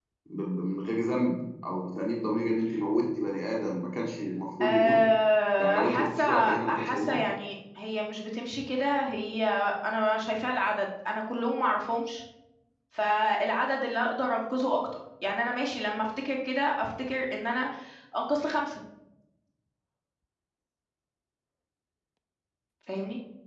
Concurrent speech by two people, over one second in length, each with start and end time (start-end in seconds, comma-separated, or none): 5.6-7.2